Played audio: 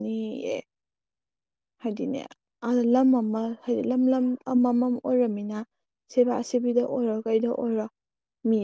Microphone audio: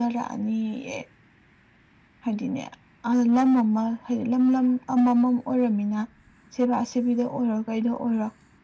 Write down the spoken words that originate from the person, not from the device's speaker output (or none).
none